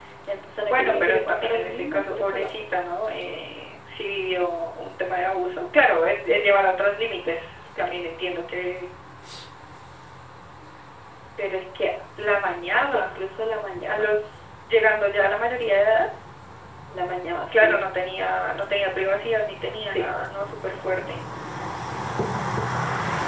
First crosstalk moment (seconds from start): 0.7 s

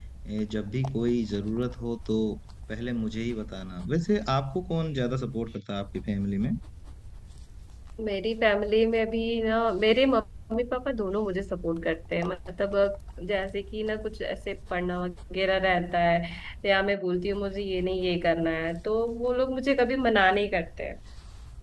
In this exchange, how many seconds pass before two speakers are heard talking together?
none

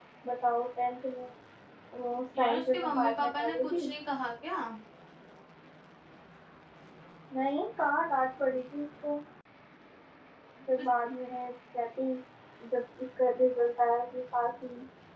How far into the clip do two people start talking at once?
2.4 s

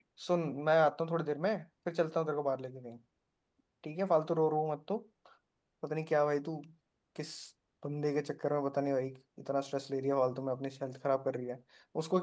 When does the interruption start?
none

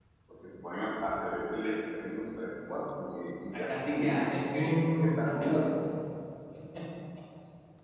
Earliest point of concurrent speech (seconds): 3.5 s

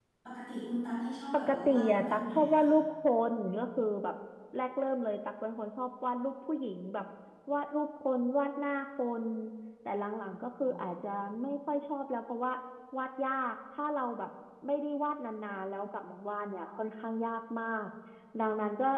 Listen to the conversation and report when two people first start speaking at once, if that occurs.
1.3 s

